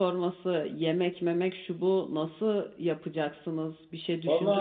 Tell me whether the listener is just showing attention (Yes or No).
No